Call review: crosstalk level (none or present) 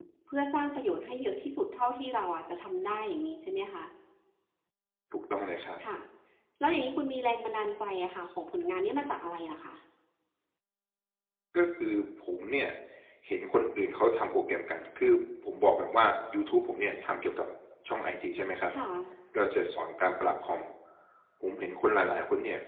none